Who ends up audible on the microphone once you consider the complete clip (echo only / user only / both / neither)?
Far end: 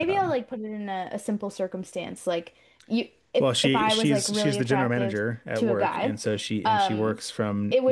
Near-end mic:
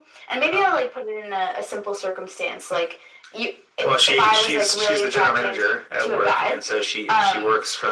echo only